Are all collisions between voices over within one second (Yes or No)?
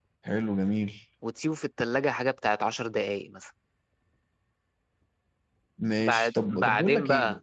No